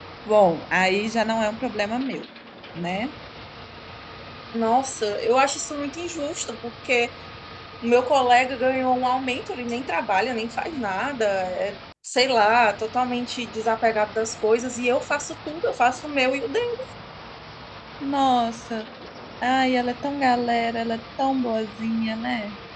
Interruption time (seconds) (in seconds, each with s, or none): none